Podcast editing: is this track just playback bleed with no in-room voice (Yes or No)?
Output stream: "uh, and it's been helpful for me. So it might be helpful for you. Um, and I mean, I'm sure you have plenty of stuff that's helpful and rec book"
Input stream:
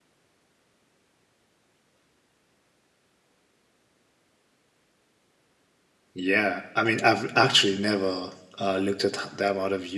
No